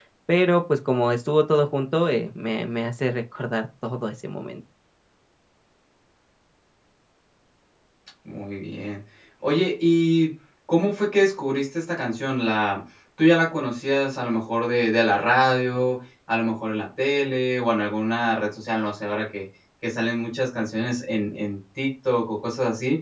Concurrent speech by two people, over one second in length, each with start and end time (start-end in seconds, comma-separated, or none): none